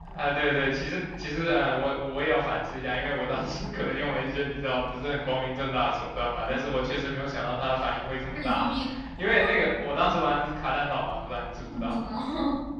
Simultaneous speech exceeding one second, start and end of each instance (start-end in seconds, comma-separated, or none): none